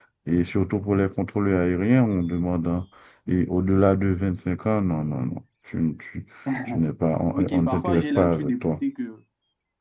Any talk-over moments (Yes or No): Yes